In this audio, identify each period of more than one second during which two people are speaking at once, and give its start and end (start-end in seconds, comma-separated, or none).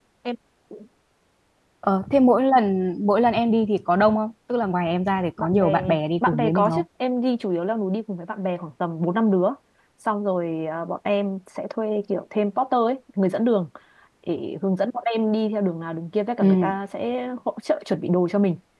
5.4-6.8